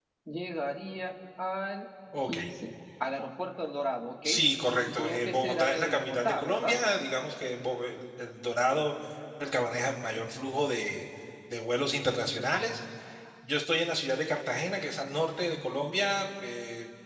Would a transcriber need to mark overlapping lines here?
Yes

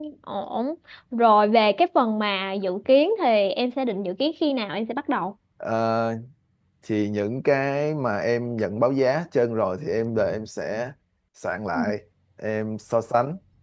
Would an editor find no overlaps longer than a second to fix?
Yes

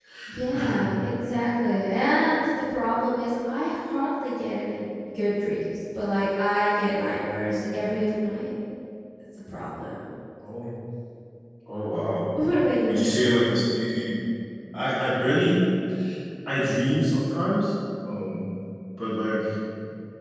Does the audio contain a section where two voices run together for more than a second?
No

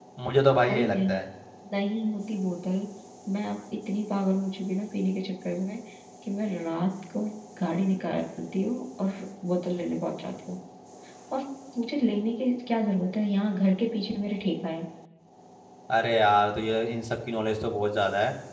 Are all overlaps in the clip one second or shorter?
Yes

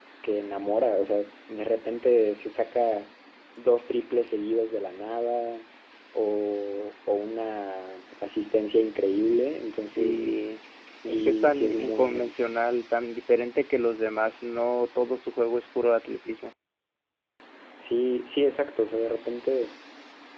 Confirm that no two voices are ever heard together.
No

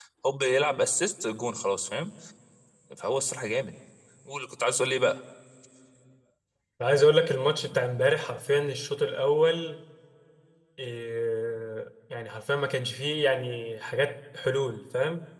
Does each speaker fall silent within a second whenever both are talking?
Yes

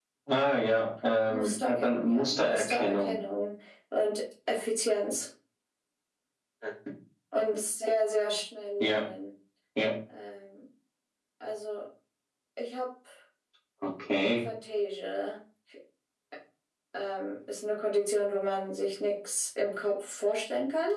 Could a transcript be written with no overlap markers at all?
No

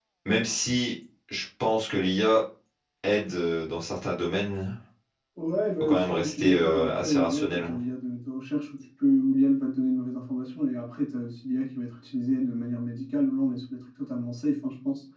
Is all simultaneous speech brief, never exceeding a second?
No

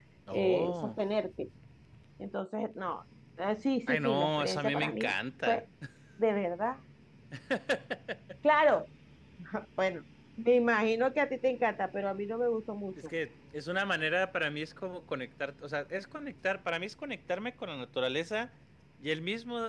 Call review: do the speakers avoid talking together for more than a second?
No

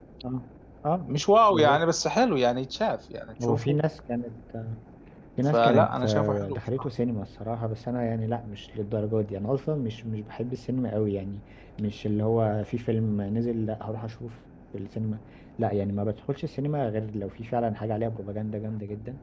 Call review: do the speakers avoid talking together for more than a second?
No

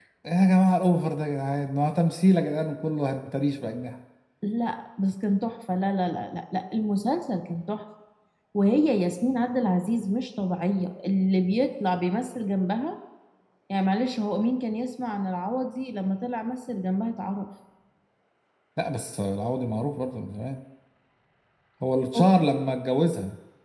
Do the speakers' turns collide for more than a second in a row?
No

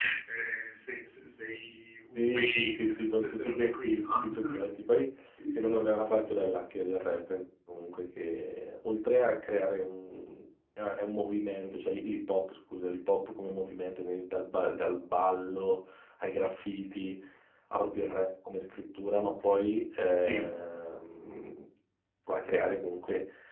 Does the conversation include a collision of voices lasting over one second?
Yes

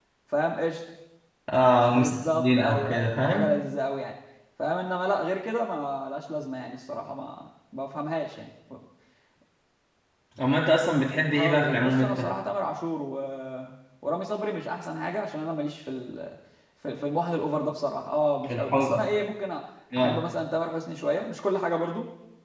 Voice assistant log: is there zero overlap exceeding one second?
No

